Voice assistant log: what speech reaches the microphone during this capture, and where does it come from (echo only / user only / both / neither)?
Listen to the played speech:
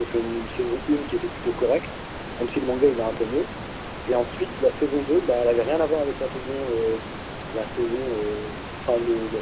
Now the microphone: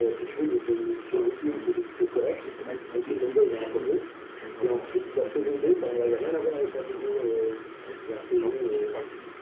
both